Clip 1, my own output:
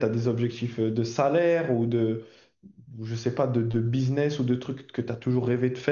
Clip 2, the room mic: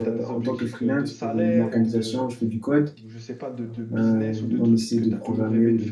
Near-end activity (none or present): present